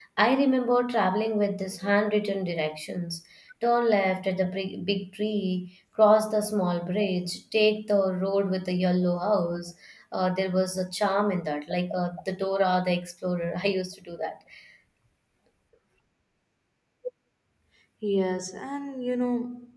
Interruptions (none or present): none